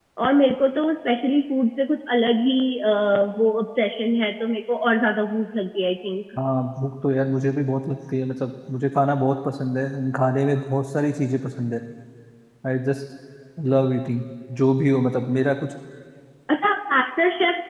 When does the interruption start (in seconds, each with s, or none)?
none